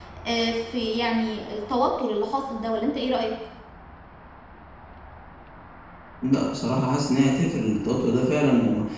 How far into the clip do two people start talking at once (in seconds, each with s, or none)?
none